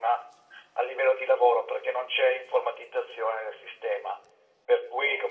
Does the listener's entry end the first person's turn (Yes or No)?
No